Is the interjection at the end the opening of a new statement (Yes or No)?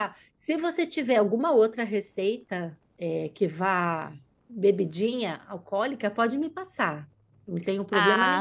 Yes